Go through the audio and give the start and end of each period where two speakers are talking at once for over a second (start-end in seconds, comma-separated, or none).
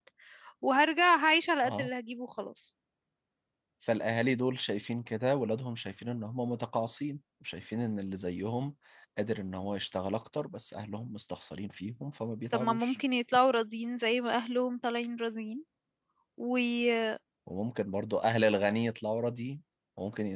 none